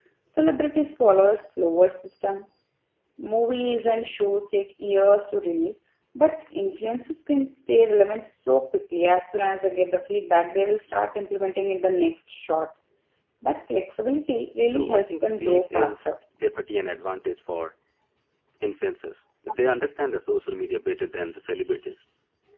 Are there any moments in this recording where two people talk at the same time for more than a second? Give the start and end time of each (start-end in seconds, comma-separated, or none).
14.7-16.0